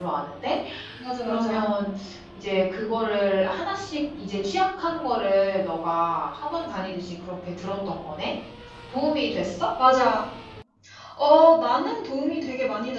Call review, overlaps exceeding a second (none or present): none